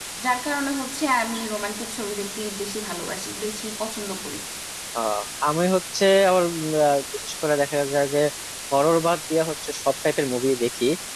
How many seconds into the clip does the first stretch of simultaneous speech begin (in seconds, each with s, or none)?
none